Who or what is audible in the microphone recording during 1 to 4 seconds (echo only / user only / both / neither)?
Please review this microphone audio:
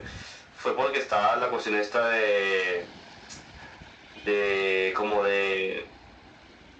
echo only